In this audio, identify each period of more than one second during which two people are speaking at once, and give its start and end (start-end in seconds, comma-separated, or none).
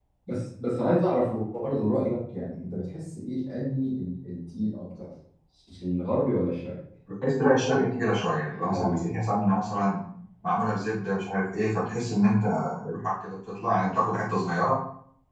none